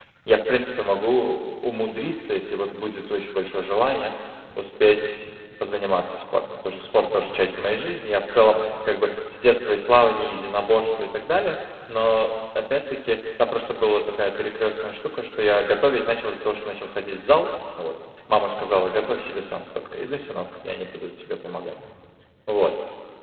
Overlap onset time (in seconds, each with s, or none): none